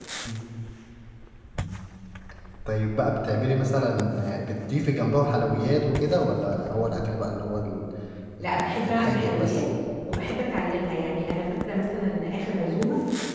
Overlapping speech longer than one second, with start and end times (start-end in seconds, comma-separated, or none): 8.4-9.6